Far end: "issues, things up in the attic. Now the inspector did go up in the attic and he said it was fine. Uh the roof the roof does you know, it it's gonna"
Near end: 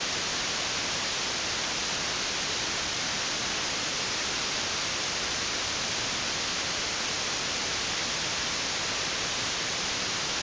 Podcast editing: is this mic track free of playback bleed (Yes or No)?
Yes